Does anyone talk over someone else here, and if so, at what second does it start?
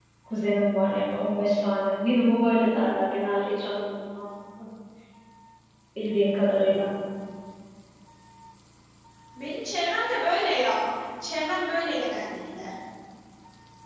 none

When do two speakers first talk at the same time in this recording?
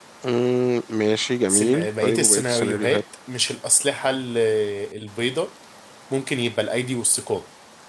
1 s

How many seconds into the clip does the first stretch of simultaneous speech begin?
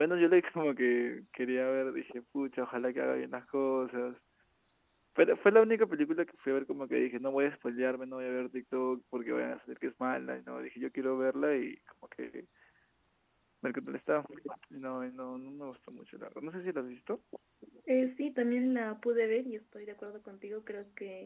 none

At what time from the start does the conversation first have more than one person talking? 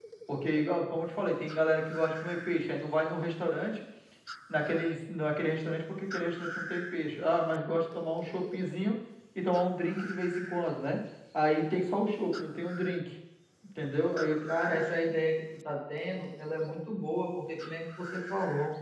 none

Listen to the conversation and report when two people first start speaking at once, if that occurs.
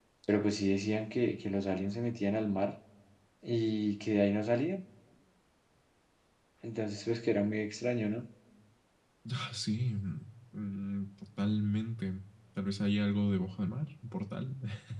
none

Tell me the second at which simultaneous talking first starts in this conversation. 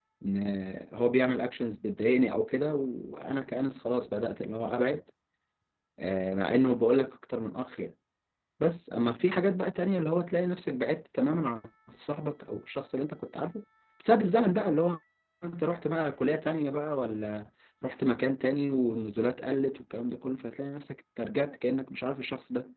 none

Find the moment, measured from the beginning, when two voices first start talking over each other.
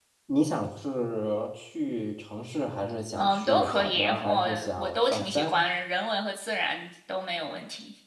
3 s

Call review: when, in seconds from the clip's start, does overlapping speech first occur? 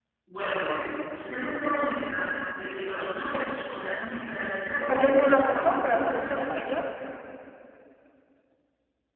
5 s

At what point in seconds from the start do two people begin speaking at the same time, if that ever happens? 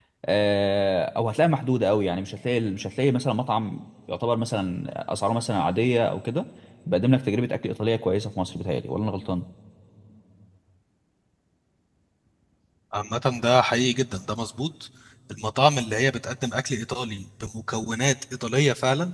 none

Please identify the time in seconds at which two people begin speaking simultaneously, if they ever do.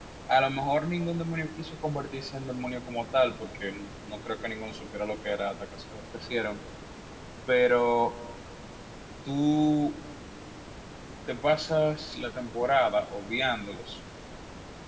none

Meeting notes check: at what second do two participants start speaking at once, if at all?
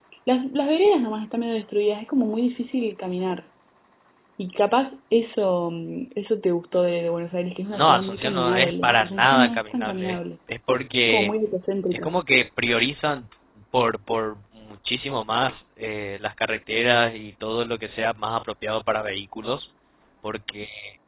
8 s

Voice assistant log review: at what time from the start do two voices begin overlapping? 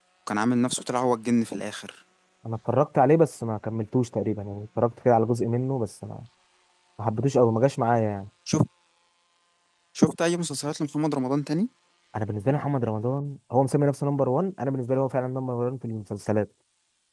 none

